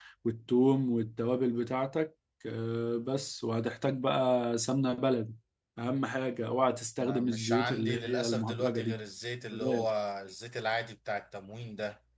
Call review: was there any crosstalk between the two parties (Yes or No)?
Yes